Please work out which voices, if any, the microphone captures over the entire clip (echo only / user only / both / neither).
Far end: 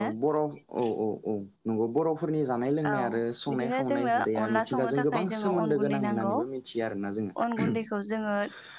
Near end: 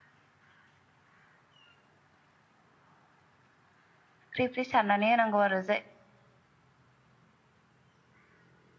user only